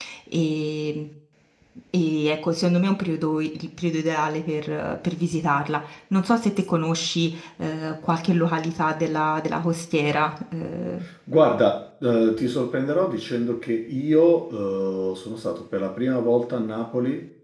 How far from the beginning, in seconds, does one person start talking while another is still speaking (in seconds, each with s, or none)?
none